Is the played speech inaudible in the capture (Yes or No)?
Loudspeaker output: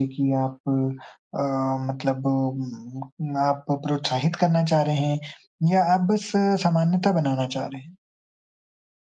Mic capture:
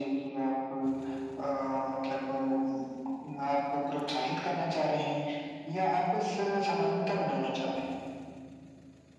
No